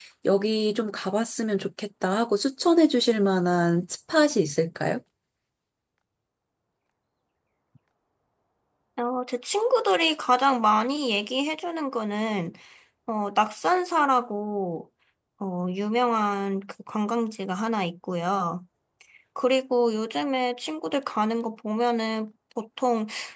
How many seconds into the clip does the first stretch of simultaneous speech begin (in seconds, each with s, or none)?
none